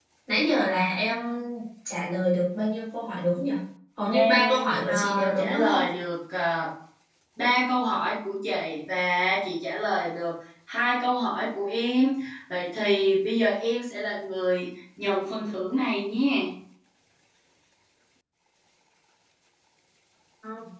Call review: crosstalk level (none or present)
present